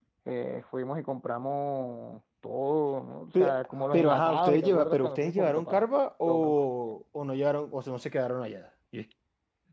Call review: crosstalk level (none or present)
present